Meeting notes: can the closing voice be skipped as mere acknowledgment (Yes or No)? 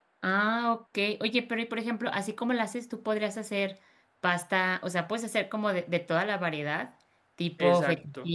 Yes